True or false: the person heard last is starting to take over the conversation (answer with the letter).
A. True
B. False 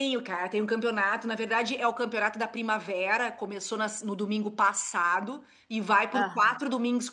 B